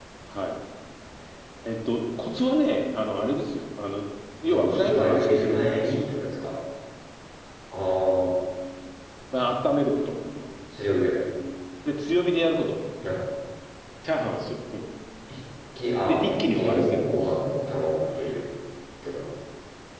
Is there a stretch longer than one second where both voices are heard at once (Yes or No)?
Yes